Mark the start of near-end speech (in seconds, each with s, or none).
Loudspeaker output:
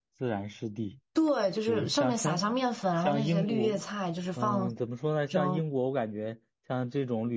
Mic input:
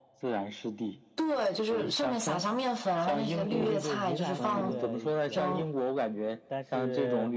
3.5 s